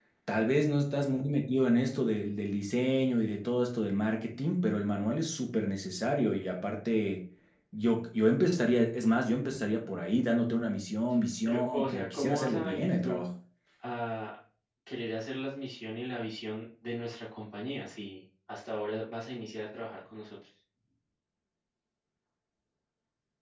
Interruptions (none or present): present